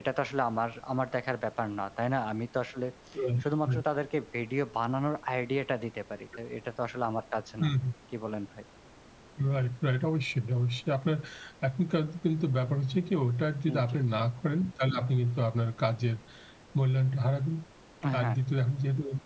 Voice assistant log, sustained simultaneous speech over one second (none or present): none